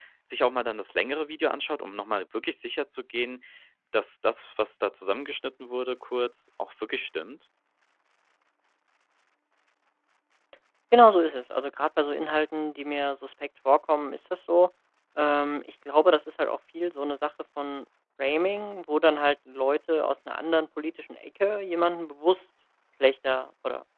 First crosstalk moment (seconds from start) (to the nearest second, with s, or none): none